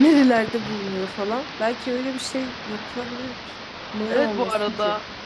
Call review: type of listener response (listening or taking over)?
taking over